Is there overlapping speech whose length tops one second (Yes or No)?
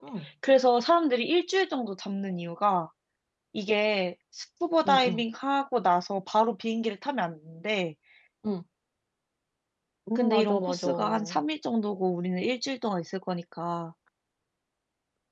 Yes